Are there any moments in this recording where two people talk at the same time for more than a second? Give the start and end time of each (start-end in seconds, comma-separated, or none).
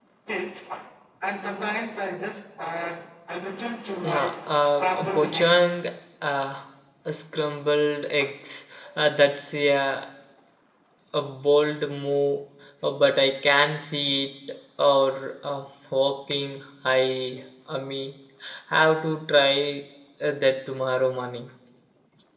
4.0-5.8